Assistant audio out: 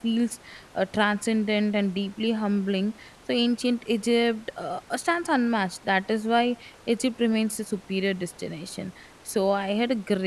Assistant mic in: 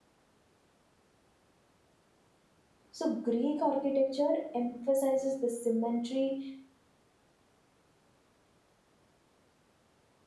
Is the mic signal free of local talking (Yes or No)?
No